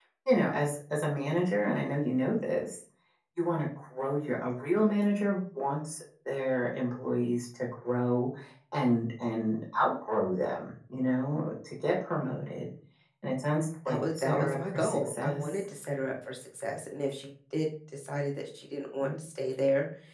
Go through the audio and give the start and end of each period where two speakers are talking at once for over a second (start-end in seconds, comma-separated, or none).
13.9-15.4